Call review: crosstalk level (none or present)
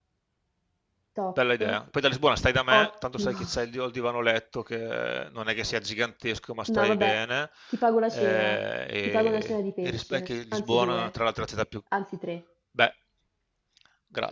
present